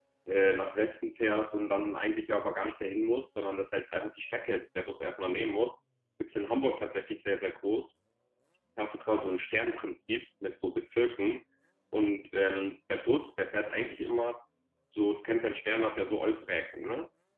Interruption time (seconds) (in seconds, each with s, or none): none